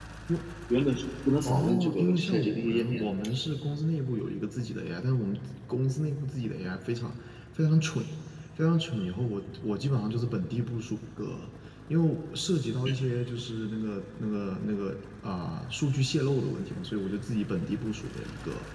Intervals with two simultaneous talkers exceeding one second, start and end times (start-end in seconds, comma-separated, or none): 1.4-3.0